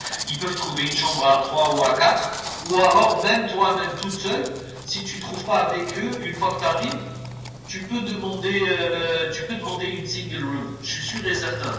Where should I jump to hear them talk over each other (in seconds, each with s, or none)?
none